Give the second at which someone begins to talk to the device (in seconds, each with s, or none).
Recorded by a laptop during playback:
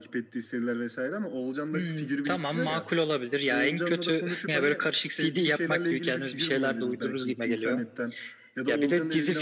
none